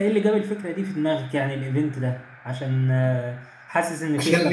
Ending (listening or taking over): taking over